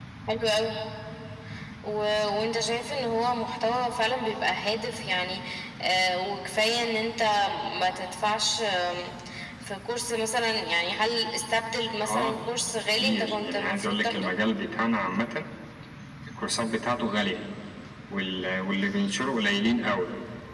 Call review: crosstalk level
present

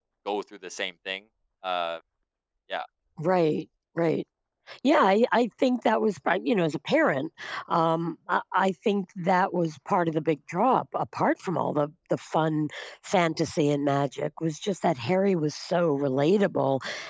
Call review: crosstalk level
none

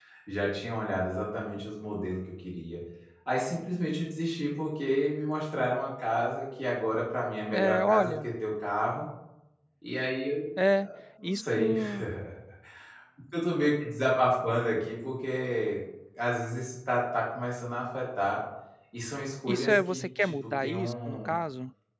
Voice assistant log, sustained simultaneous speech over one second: present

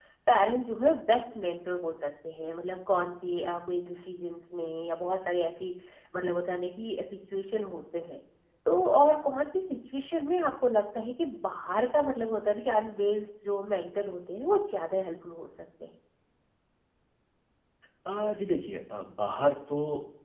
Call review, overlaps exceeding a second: none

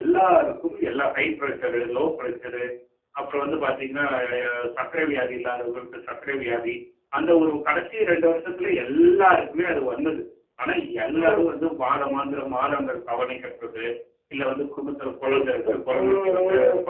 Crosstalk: present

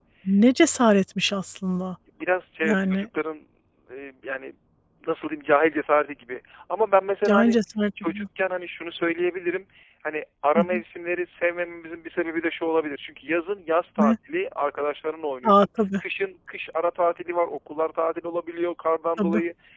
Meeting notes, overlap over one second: none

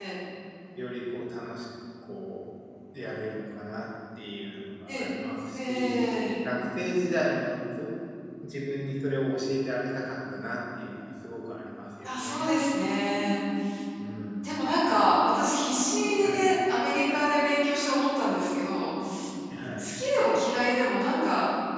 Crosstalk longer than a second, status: none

